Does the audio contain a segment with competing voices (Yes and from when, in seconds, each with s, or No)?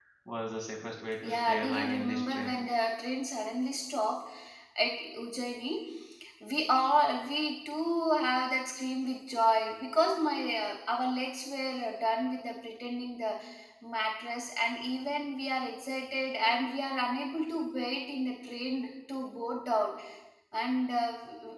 Yes, from 1.2 s